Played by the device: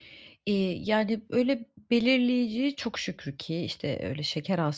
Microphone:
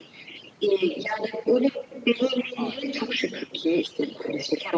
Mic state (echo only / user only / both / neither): both